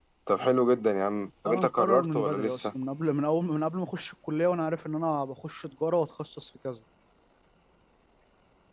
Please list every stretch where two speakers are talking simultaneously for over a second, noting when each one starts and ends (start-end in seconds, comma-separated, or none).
1.5-2.7